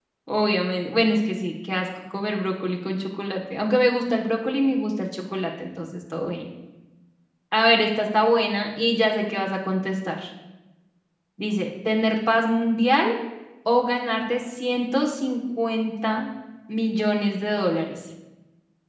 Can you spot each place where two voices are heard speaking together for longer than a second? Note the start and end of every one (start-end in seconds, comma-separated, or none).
none